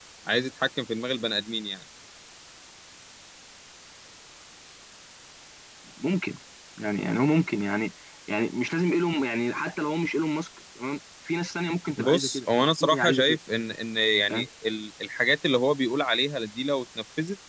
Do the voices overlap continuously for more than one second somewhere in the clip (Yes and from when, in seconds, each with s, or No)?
Yes, from 12.0 s